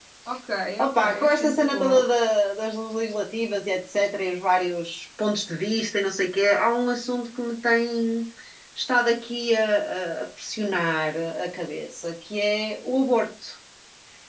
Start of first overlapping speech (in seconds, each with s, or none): 0.8 s